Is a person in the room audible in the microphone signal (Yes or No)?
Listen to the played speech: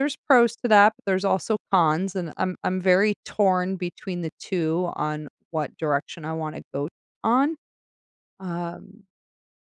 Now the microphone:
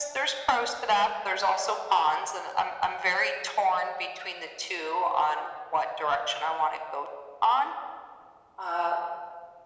No